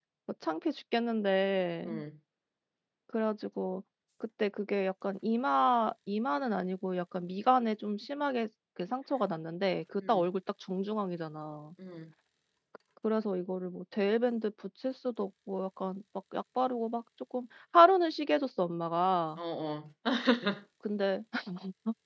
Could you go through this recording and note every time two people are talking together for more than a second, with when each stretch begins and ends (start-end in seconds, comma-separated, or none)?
none